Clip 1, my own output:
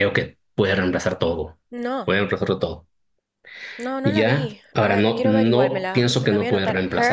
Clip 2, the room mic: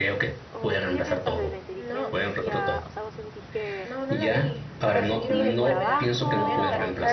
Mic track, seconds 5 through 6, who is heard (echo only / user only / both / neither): both